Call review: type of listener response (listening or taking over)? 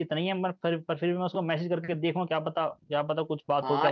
taking over